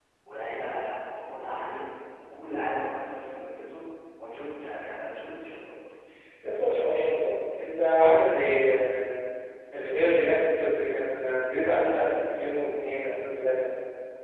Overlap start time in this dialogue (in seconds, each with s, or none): none